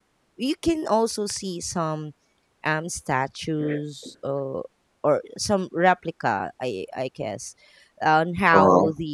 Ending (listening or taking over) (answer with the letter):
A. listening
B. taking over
A